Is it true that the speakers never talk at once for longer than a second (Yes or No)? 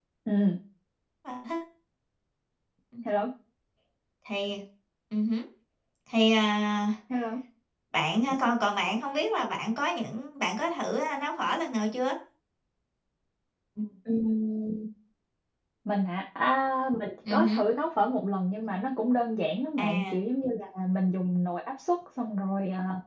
Yes